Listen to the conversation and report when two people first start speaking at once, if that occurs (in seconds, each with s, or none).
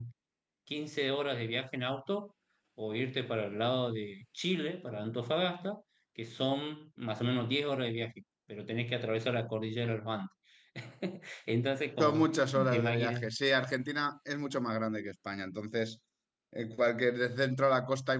12.0 s